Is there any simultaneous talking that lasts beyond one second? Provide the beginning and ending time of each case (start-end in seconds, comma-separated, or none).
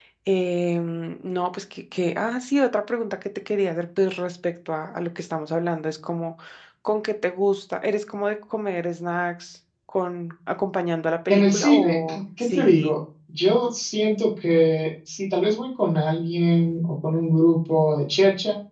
11.3-12.9